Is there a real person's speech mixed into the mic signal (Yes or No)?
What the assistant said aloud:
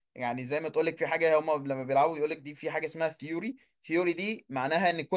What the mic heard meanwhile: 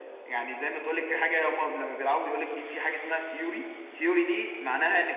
No